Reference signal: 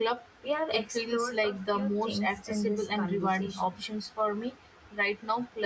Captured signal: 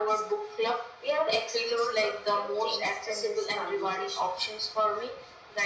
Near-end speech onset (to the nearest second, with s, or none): none